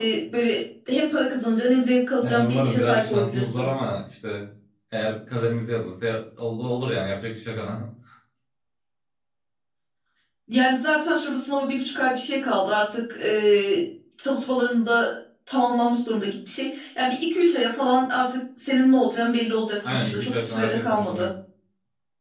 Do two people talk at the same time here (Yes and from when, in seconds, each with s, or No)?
Yes, from 2.2 s